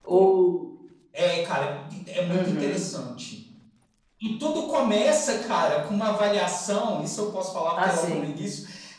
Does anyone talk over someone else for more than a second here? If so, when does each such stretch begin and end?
none

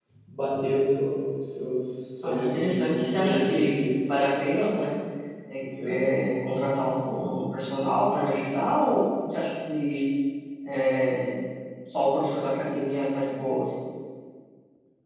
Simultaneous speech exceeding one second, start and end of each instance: 2.2-3.8

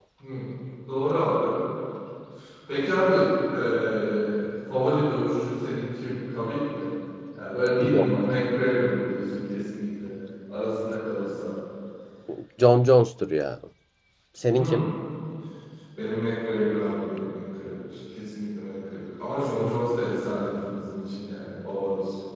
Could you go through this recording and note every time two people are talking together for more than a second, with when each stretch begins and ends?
none

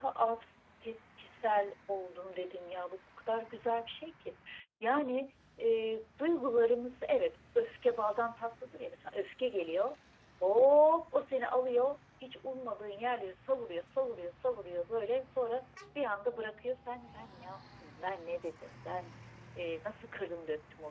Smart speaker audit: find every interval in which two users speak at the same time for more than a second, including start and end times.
none

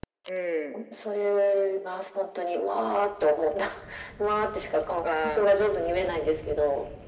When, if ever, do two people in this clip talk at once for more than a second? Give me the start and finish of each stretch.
none

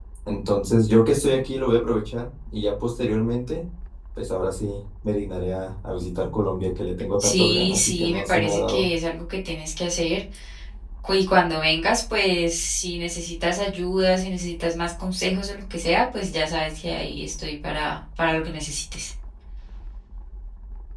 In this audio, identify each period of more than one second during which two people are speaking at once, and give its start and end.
7.2-8.9

